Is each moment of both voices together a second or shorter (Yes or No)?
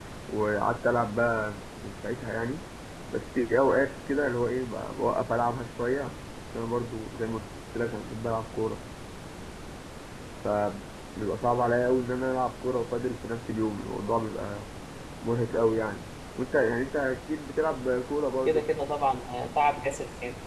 Yes